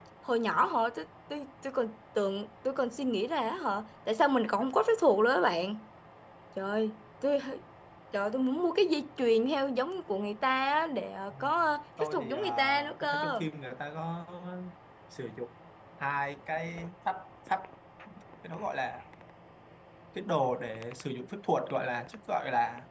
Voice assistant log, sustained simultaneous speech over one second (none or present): present